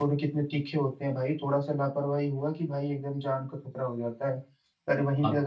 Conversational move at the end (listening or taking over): listening